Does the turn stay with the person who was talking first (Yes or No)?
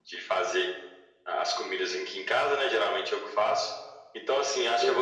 Yes